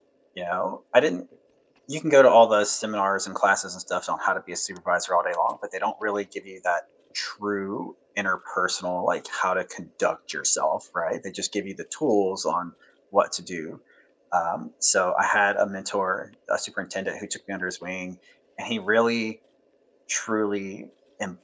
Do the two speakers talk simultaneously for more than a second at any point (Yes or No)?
No